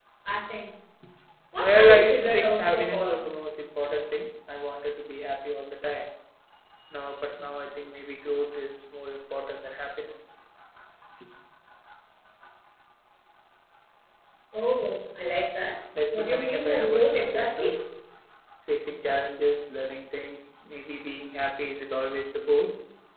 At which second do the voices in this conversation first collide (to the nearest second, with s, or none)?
2 s